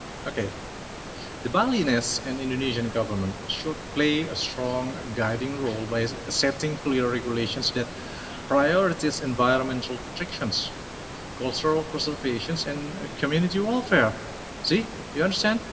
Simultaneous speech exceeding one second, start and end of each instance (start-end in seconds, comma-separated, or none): none